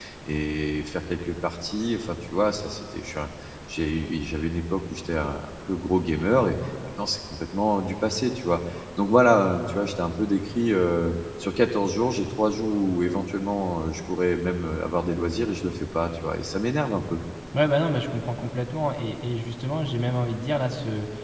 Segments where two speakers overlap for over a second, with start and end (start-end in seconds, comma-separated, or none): none